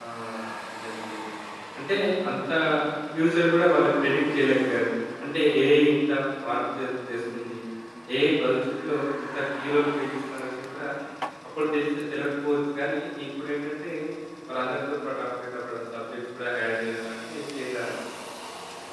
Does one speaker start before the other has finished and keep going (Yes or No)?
No